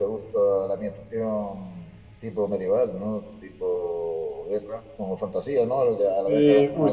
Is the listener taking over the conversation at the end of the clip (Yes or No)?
Yes